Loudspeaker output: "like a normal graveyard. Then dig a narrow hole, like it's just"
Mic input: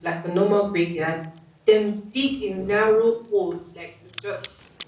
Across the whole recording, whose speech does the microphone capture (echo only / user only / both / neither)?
echo only